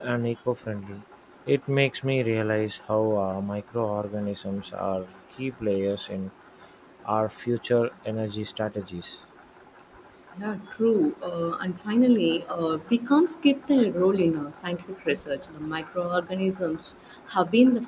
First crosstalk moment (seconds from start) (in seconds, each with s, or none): none